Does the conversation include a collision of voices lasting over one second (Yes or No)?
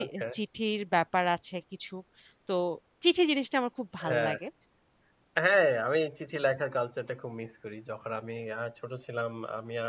No